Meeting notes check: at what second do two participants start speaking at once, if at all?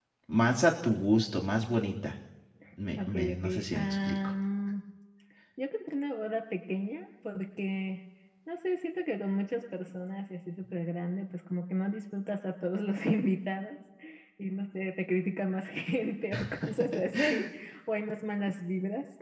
3 s

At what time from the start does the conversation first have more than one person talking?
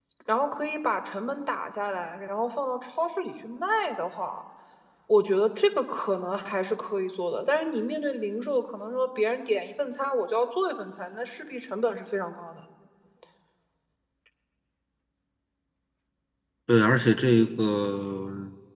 none

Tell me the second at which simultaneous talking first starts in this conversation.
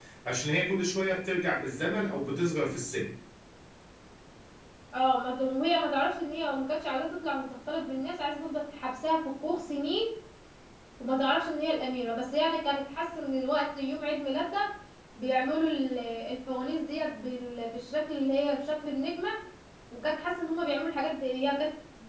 none

